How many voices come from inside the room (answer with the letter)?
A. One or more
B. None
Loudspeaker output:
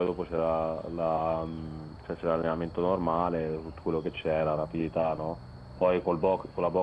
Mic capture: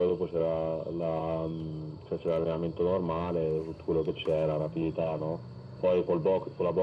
B